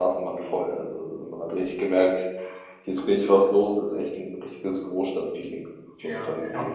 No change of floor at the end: No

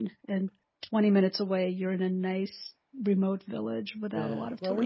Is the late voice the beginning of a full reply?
Yes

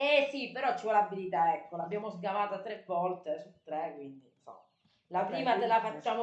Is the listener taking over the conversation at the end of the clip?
No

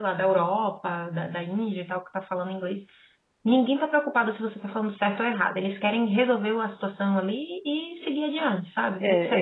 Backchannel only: No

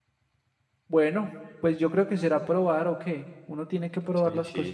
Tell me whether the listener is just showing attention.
No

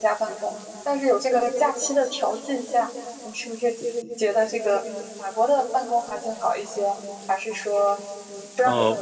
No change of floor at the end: No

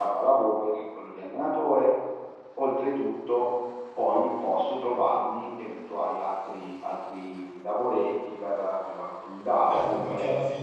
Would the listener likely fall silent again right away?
No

